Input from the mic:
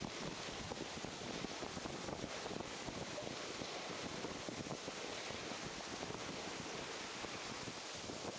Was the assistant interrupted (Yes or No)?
No